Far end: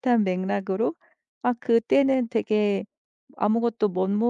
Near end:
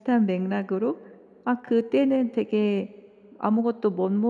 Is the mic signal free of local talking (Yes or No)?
Yes